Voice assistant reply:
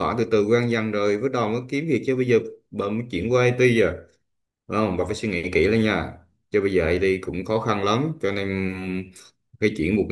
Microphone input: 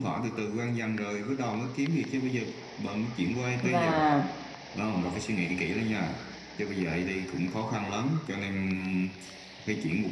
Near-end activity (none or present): present